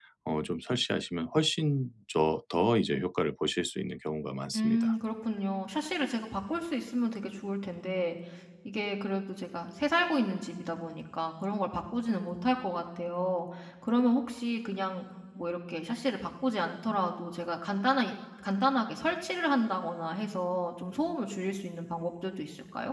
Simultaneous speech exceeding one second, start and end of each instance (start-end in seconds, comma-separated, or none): none